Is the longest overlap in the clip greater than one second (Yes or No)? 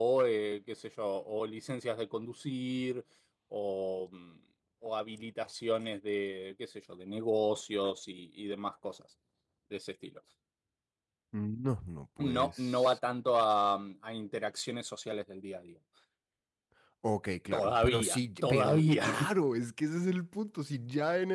Yes